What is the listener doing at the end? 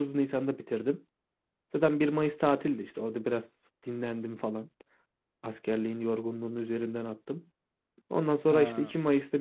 listening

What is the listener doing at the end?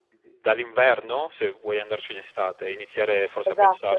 taking over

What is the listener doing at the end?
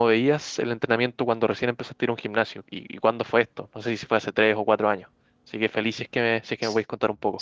taking over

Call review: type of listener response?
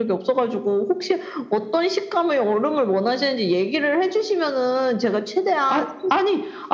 taking over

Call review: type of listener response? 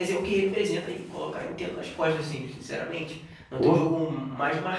listening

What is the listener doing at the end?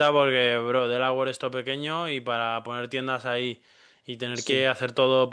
listening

